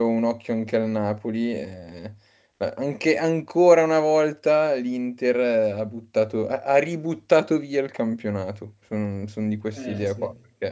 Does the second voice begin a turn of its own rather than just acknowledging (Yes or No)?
No